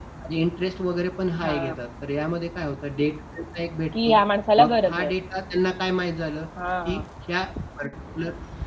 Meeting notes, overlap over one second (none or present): none